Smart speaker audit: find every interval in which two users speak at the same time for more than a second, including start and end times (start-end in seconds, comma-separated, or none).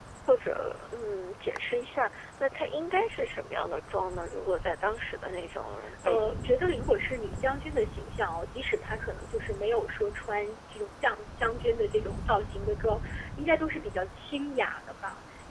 none